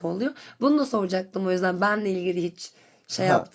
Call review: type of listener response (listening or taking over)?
taking over